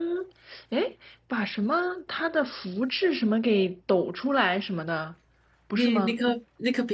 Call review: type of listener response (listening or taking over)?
taking over